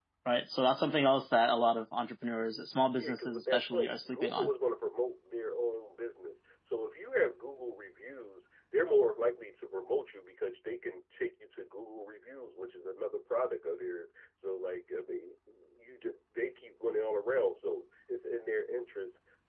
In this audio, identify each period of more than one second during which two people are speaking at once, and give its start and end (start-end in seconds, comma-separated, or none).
3.0-4.5